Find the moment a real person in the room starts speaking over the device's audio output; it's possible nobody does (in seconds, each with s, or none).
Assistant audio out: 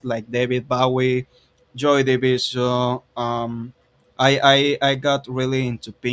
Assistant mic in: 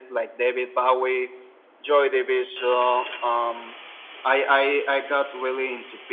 none